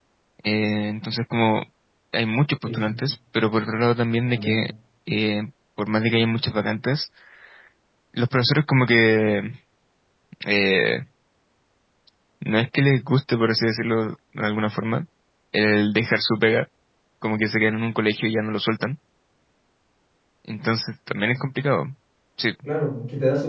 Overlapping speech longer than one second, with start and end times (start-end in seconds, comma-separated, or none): none